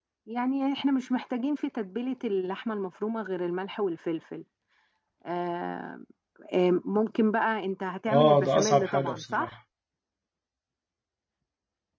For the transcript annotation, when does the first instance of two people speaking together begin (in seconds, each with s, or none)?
8.1 s